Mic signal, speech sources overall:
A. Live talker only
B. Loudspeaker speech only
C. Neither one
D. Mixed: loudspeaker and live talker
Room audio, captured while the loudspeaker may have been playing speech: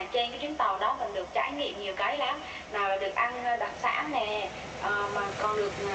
B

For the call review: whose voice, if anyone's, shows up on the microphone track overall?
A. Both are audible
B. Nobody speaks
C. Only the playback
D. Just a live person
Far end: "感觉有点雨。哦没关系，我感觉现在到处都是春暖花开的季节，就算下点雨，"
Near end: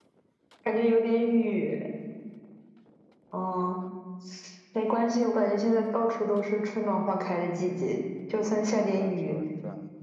A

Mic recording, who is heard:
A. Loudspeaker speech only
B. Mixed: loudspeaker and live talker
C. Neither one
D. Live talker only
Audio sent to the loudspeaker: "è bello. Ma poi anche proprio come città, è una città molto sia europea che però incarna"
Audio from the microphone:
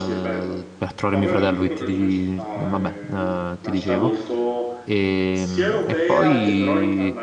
B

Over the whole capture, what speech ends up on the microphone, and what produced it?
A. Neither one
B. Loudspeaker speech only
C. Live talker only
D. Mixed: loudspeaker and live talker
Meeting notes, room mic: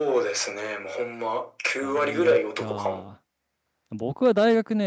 D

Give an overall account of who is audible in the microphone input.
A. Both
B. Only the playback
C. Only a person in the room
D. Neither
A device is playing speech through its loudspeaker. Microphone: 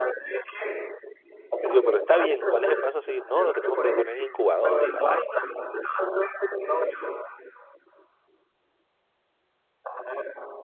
A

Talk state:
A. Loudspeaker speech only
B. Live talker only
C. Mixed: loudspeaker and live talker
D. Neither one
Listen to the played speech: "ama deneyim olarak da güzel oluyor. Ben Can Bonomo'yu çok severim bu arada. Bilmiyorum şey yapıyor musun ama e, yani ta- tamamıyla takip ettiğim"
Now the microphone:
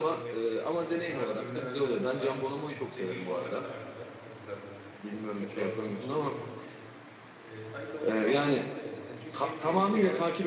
C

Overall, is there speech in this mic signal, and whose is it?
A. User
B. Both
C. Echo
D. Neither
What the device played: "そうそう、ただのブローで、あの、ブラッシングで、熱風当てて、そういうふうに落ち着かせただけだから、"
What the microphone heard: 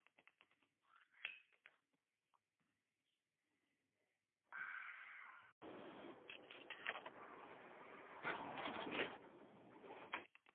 D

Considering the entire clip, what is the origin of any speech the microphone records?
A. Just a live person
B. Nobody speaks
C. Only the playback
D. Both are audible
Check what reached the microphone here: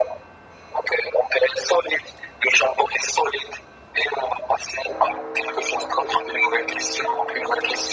C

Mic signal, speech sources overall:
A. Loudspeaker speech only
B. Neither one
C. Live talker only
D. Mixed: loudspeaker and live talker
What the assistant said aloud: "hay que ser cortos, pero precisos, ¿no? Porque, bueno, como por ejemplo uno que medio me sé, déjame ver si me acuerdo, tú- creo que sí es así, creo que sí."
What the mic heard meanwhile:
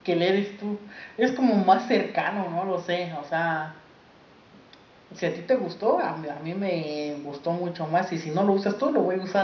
C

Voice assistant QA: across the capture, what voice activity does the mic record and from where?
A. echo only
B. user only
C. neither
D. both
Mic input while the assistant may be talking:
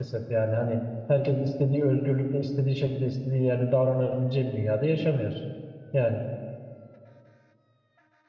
B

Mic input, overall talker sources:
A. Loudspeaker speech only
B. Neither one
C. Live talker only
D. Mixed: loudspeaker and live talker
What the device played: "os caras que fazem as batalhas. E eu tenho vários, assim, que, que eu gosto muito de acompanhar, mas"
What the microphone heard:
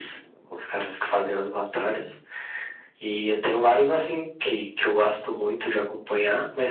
A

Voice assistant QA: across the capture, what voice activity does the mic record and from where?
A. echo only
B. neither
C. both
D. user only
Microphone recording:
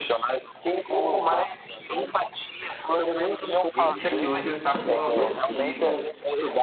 C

